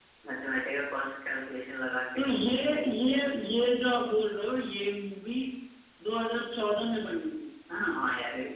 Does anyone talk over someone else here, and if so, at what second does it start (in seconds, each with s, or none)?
none